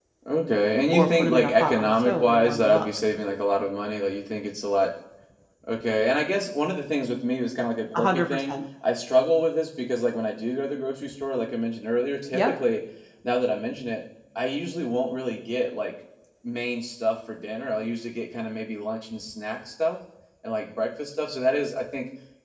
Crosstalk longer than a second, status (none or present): present